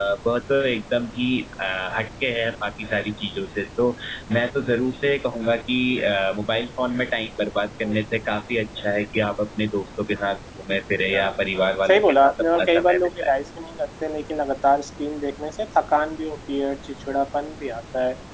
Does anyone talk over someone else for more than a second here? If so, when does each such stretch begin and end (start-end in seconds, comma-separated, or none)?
11.9-13.3